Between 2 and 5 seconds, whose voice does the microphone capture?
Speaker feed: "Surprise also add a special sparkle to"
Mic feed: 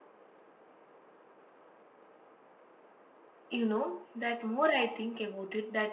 user only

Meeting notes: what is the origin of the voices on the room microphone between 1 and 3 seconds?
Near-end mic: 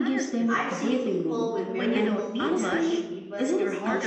both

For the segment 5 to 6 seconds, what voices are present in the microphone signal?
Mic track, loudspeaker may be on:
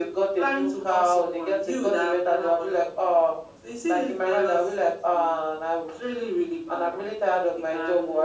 echo only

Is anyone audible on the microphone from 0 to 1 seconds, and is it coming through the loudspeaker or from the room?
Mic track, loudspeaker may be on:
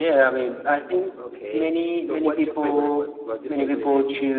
echo only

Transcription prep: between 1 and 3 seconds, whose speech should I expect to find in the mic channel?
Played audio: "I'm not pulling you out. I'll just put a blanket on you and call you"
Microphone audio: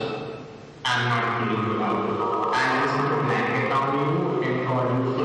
echo only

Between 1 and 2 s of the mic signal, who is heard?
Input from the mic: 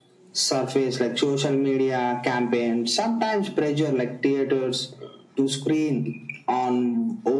echo only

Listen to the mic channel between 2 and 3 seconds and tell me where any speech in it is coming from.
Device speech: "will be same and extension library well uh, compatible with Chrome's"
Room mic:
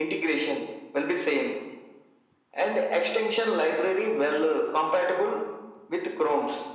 echo only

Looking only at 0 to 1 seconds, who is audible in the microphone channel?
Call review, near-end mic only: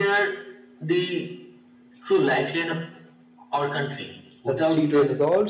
echo only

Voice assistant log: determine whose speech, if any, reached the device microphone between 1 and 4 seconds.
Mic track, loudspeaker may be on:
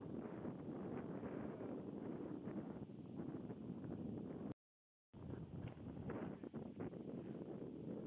neither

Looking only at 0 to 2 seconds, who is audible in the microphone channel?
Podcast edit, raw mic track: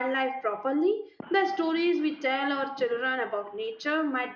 user only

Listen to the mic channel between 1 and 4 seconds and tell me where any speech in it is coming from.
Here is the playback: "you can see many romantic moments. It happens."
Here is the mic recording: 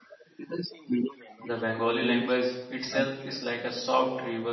both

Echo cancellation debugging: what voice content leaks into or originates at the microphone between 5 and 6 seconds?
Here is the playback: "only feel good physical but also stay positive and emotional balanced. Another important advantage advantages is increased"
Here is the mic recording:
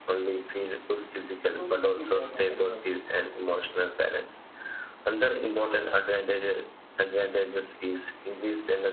echo only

